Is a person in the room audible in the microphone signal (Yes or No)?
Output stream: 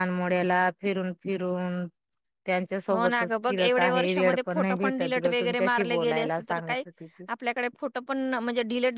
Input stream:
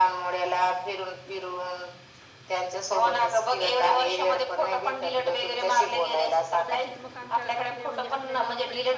Yes